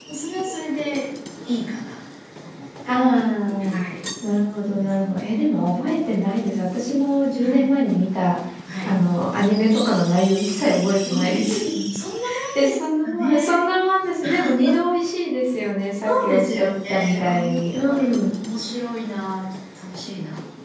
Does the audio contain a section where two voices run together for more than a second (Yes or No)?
Yes